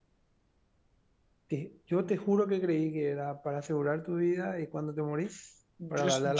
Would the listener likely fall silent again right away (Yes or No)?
No